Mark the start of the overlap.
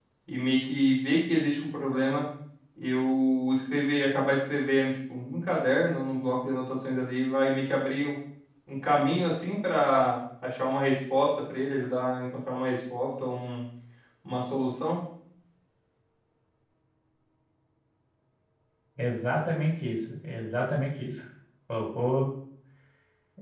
none

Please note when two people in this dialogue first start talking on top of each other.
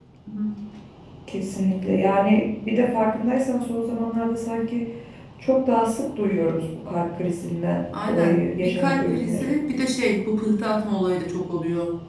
7.9 s

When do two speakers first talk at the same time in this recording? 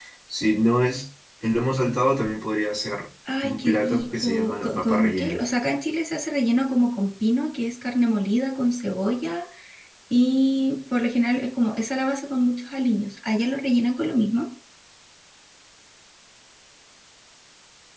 3.2 s

